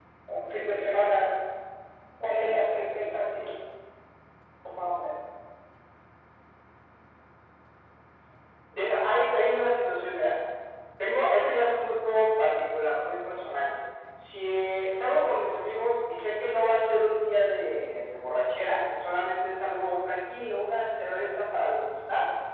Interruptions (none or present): none